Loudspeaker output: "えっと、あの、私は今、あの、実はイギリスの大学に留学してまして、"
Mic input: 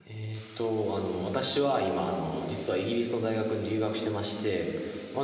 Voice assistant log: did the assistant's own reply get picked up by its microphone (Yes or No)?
Yes